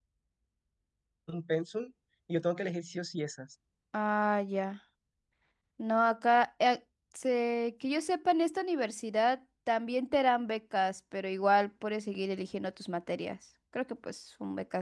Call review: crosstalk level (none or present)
none